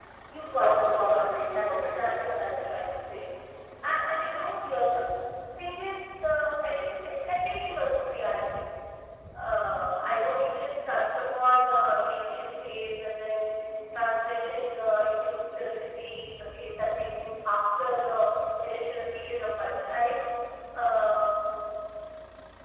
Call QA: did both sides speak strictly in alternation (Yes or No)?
No